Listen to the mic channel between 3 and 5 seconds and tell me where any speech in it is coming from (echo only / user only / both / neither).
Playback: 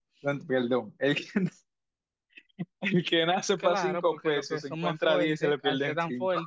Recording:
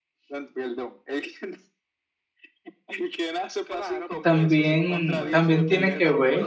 both